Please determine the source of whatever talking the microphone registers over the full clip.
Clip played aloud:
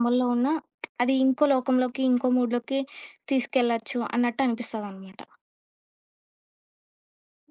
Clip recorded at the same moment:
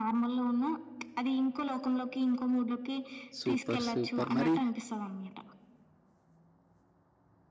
both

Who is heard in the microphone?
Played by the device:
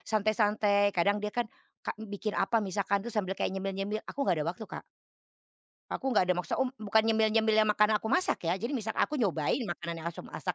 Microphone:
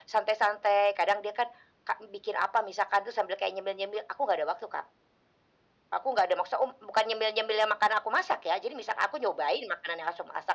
echo only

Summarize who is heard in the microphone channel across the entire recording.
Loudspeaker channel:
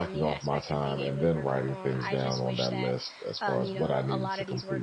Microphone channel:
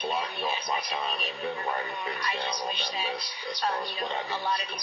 echo only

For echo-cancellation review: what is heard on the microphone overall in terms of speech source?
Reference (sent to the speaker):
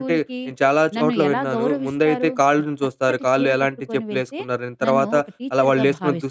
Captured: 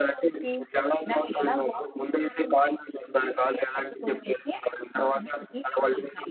echo only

